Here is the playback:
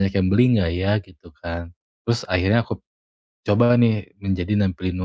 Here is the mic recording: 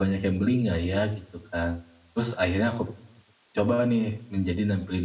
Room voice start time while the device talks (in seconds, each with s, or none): none